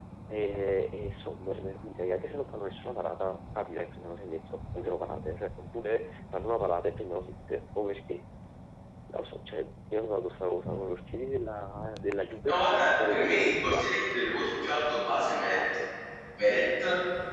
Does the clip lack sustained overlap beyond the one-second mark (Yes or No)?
No